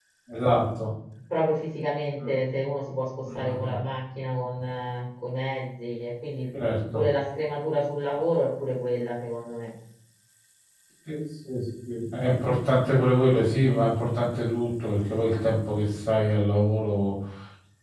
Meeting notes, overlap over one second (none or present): none